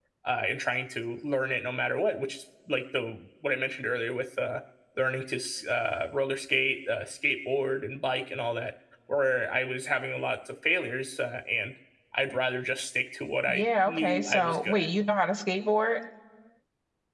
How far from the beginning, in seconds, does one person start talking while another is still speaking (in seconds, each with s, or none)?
13.5 s